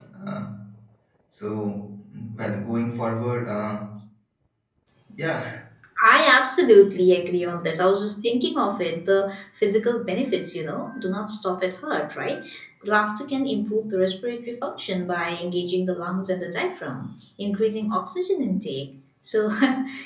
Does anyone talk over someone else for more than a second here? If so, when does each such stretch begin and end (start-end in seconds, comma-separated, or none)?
none